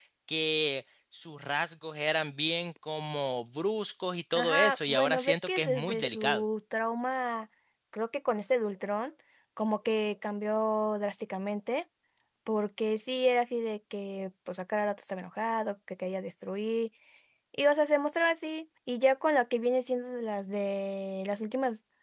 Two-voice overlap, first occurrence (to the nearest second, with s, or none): 4 s